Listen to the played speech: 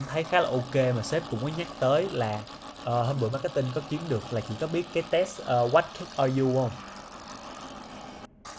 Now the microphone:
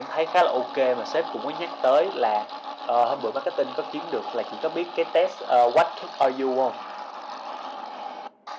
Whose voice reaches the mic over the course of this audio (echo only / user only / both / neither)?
echo only